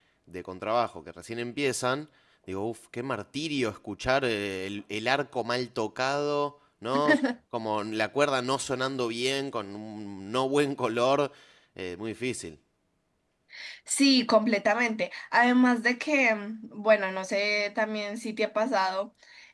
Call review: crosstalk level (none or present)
none